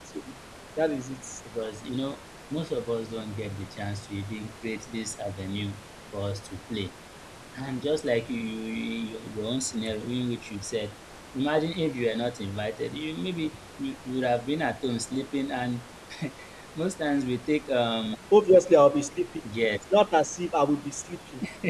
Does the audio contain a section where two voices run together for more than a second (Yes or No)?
No